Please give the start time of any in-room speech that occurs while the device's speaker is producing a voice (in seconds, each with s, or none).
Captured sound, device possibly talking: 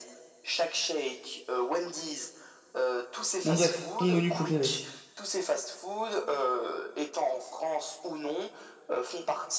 3.4 s